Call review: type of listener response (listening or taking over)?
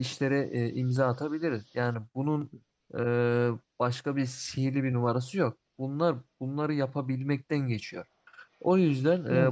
listening